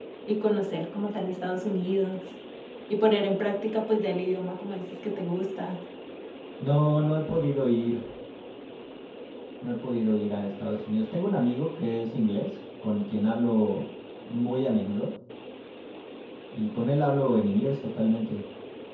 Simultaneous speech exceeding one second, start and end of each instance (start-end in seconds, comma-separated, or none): none